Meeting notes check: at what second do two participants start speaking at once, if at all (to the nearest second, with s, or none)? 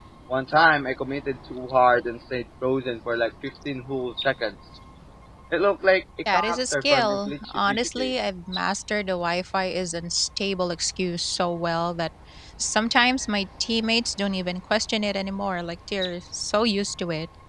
6 s